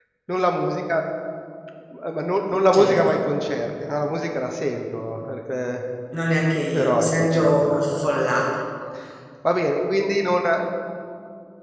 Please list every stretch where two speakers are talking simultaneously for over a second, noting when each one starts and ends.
6.7-8.1

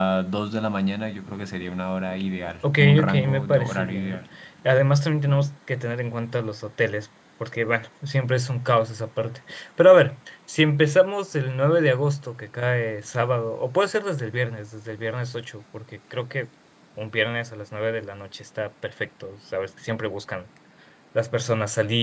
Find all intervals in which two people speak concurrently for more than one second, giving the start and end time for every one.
2.7-4.2

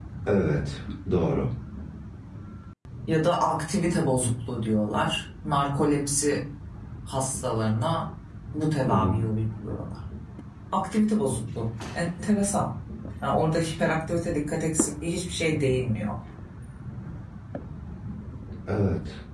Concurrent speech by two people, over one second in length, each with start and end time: none

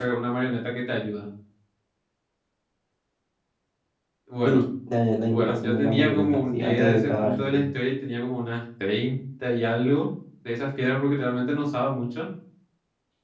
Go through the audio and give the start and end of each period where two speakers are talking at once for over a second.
5.3-7.6

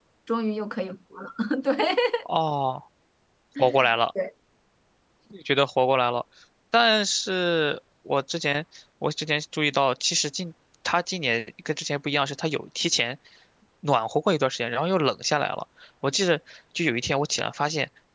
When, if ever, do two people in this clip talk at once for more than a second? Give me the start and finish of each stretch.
none

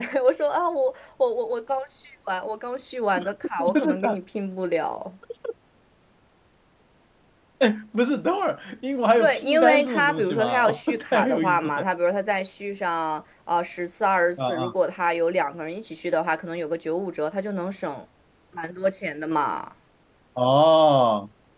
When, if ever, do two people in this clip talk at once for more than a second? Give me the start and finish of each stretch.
9.2-11.8

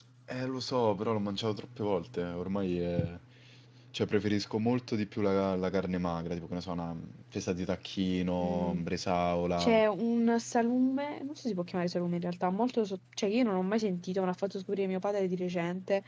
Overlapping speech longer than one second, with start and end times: none

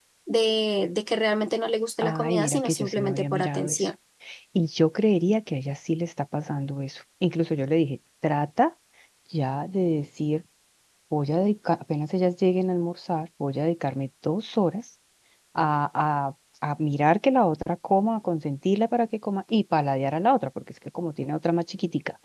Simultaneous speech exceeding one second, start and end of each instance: 2.0-3.9

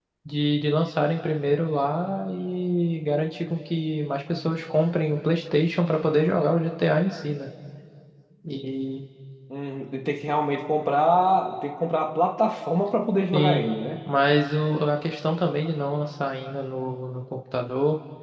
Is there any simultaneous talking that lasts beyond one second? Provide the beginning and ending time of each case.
none

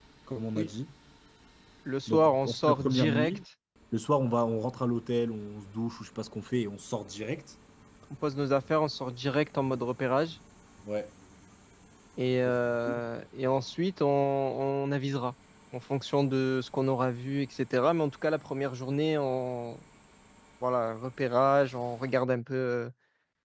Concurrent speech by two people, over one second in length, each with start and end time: 2.1-3.4

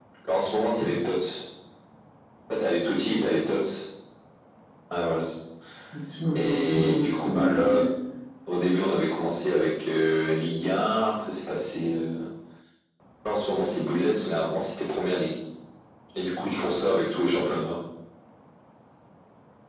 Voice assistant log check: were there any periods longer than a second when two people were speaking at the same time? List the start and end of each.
6.3-7.8

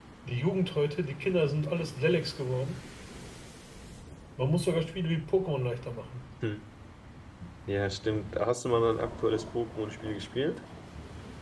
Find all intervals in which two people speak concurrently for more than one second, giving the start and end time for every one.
none

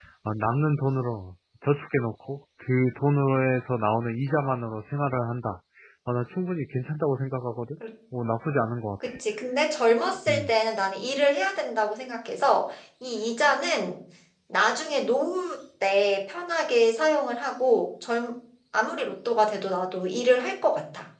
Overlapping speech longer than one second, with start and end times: none

